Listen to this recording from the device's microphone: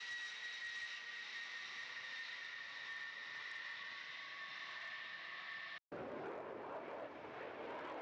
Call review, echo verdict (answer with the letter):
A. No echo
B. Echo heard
A